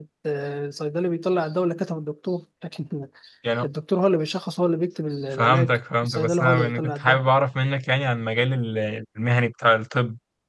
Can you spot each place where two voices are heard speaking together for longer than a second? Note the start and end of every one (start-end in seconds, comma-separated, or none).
5.4-7.2